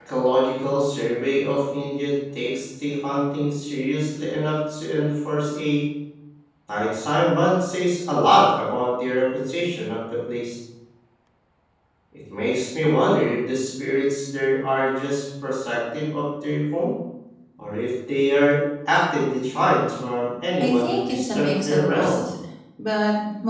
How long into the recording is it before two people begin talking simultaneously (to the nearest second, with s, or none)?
21 s